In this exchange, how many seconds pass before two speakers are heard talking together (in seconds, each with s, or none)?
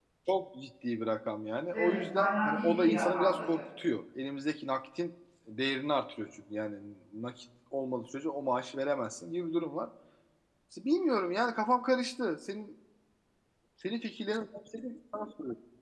1.7 s